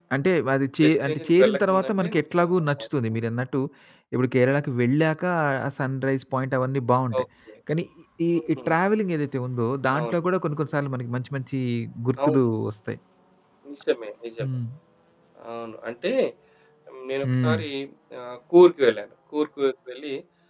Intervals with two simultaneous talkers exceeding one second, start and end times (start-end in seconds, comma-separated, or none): 0.8-2.5